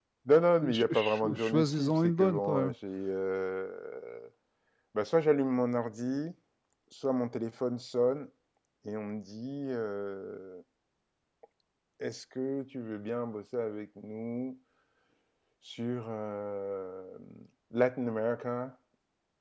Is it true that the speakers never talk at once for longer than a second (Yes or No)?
No